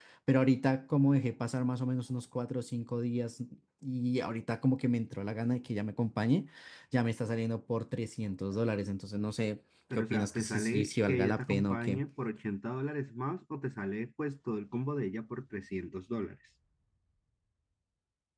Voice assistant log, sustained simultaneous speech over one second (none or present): present